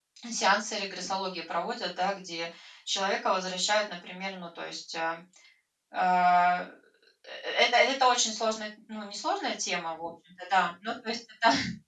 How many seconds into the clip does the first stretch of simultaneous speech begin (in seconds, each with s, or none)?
none